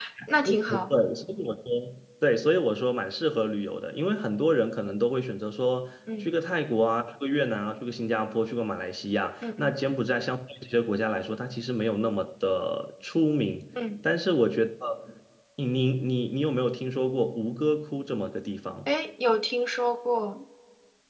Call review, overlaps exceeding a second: none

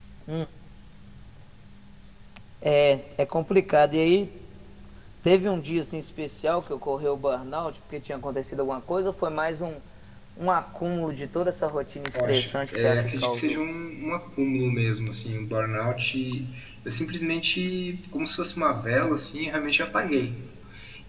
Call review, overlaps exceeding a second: present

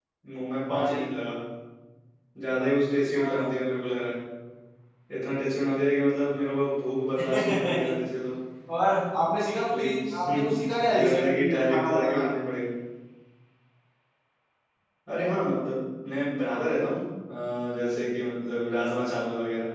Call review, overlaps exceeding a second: present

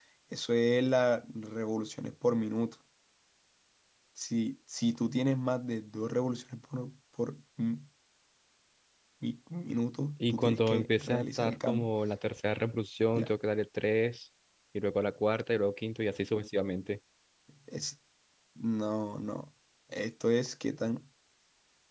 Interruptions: present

